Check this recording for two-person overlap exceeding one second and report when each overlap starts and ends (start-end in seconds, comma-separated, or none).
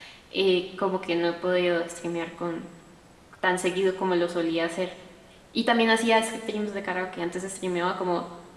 none